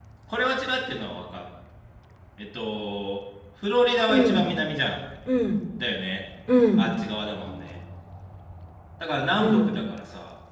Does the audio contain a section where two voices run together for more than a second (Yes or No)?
No